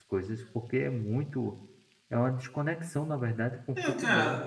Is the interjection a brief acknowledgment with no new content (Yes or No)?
No